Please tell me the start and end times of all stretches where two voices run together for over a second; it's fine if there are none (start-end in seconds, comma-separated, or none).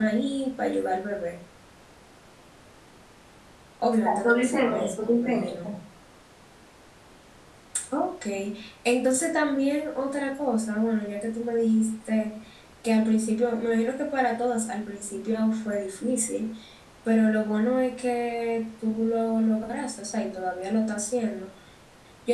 4.0-5.7